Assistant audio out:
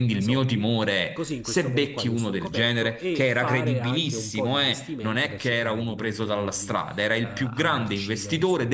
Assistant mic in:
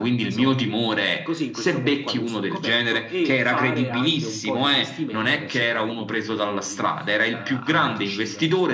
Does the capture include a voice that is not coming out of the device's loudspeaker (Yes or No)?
No